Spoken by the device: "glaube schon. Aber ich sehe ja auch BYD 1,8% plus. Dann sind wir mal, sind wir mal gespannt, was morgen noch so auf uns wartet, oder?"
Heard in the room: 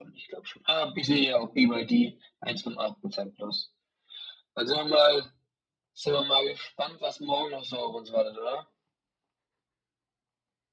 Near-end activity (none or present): none